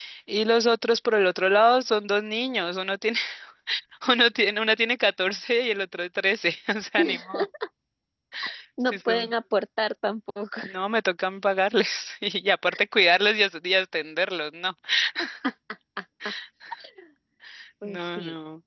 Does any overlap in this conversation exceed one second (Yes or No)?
No